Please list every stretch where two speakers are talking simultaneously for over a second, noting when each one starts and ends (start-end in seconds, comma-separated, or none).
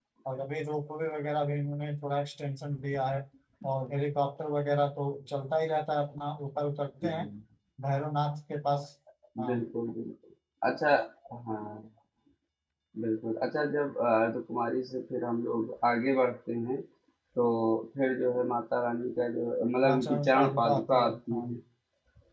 19.9-21.4